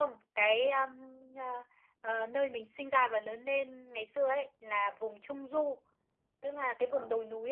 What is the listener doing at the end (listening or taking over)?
listening